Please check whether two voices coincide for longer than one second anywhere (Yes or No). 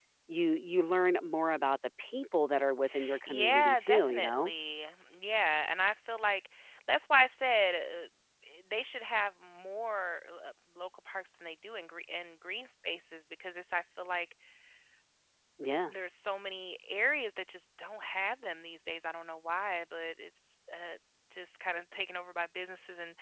Yes